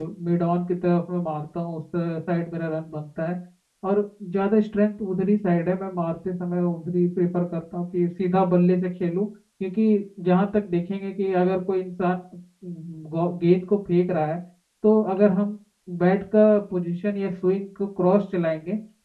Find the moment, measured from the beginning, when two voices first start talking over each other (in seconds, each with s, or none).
none